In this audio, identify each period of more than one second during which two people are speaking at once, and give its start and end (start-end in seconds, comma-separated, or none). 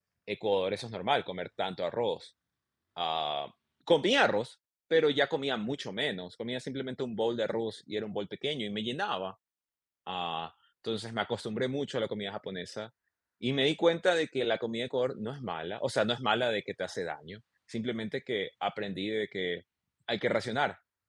none